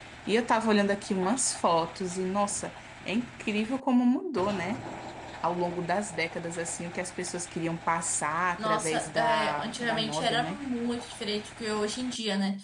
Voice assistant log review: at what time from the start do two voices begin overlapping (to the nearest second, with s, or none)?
9 s